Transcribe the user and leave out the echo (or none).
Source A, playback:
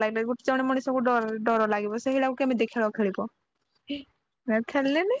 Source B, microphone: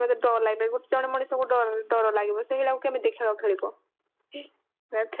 none